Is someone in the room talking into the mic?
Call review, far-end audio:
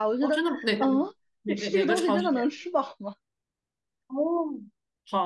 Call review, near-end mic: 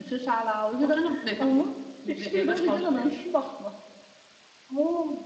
No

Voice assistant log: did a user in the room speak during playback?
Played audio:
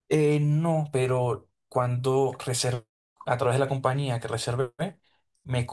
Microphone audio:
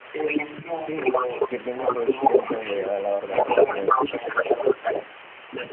Yes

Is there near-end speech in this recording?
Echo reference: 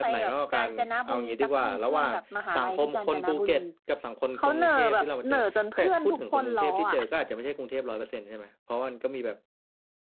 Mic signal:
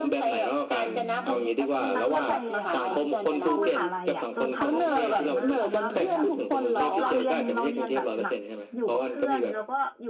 Yes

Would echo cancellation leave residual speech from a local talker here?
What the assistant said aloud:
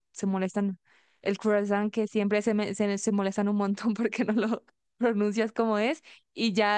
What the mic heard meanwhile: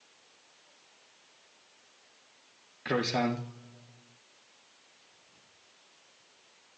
Yes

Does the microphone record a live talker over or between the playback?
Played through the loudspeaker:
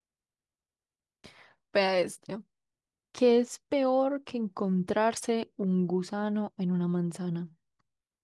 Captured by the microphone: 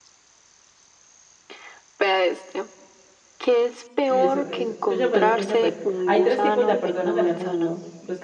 Yes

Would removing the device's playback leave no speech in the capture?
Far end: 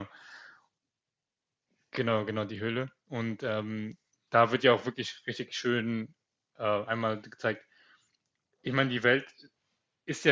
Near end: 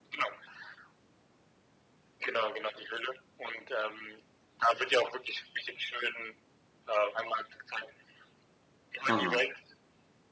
No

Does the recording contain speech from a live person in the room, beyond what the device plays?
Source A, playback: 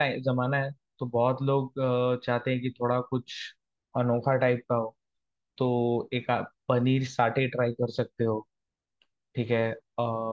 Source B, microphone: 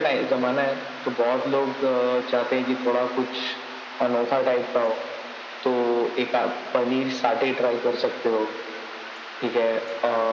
No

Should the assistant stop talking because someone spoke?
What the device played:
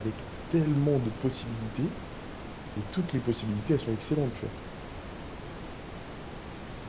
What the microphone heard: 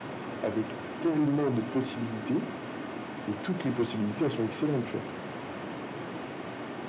No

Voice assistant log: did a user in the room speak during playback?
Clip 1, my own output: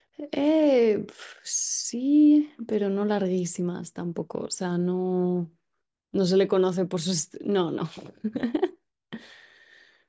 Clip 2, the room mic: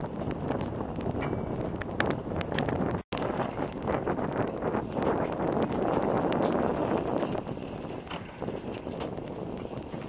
No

